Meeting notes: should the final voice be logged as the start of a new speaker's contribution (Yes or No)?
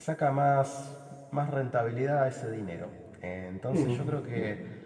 No